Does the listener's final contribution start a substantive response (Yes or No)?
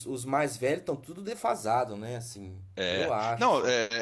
Yes